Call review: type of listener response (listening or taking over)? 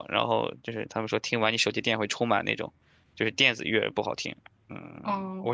taking over